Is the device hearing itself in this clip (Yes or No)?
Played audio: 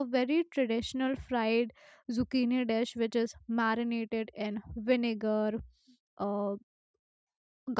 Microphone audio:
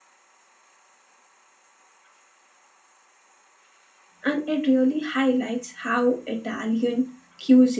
No